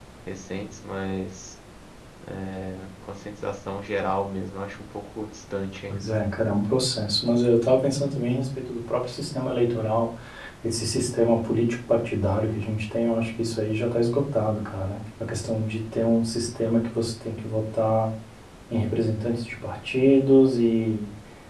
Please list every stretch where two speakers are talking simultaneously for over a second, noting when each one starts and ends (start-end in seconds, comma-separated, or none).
none